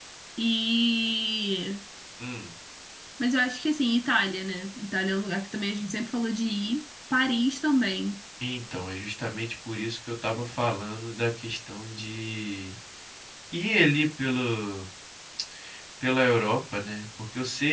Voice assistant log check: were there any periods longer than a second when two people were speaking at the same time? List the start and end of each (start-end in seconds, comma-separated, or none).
none